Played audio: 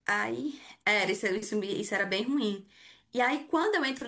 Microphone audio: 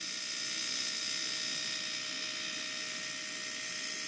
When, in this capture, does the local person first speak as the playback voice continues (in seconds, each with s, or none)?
none